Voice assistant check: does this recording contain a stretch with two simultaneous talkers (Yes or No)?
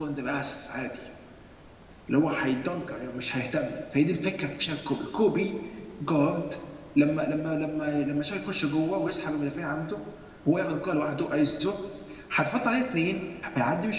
No